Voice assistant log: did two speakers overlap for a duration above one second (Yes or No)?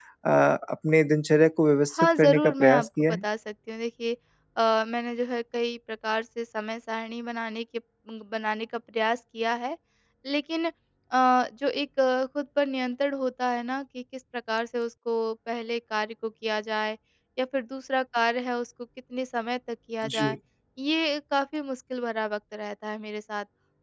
Yes